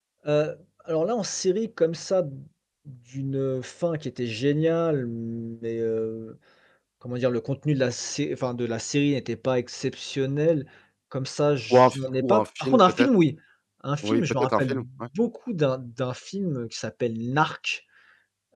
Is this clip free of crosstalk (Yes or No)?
No